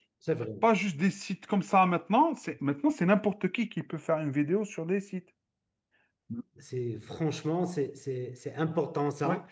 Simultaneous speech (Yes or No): No